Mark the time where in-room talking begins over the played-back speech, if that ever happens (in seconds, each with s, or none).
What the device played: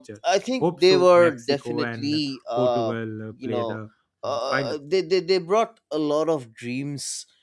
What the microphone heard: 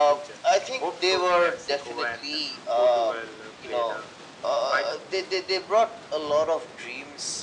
none